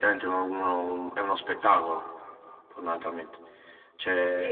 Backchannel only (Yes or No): No